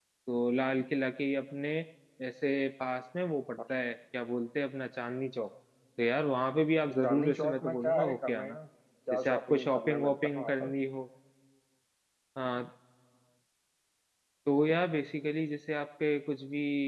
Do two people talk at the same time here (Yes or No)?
Yes